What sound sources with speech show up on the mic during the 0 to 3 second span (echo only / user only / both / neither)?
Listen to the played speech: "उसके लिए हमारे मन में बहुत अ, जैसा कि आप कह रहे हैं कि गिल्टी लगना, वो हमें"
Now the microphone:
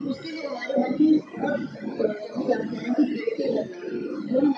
echo only